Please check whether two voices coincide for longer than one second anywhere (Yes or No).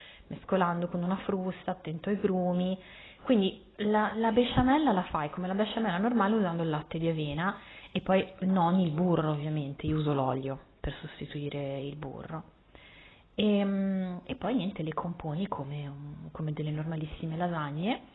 No